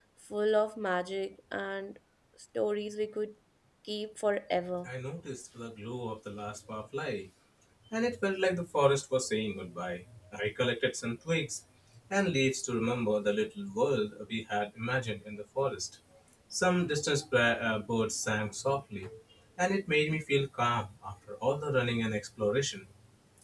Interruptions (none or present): none